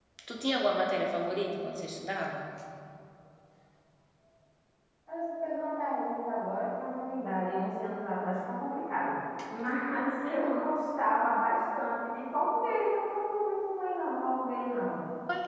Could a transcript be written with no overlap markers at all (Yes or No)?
Yes